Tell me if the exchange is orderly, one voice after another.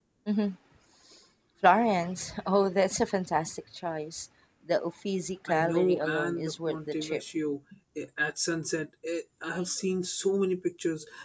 No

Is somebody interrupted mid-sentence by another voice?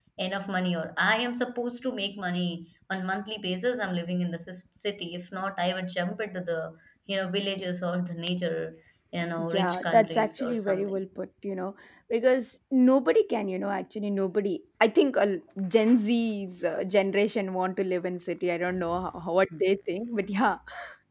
Yes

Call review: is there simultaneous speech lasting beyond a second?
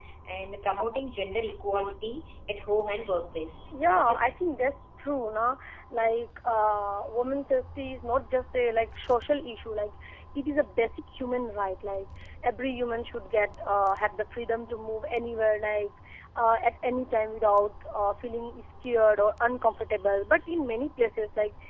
No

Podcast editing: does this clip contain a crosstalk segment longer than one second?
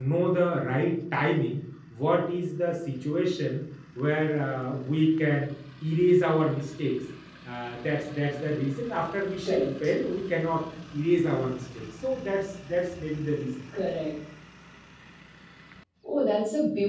No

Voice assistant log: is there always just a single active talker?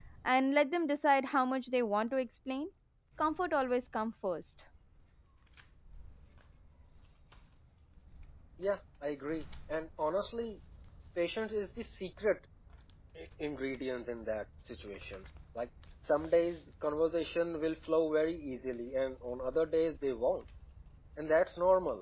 Yes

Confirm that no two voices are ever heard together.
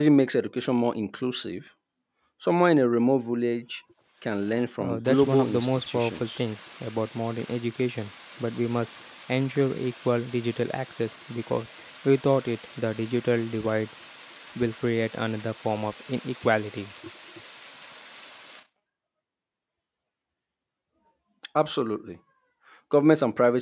No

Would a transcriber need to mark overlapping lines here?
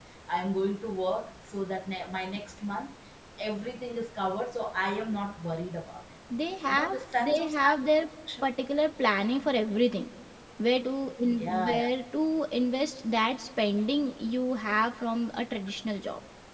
Yes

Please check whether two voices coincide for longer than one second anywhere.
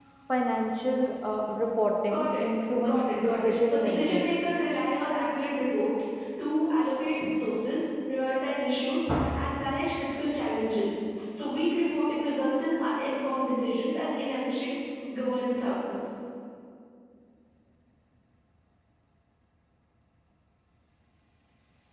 Yes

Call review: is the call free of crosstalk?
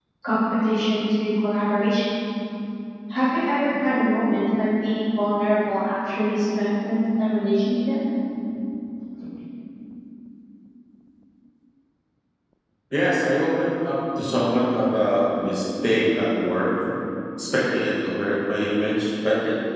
Yes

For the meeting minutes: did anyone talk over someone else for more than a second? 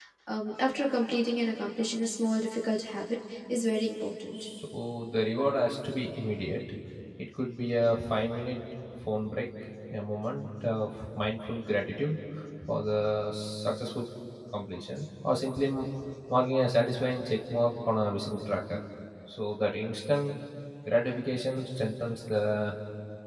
No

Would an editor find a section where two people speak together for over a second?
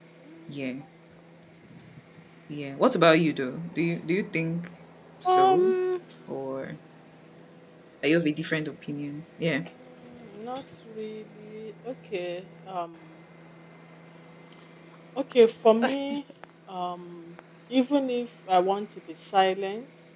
No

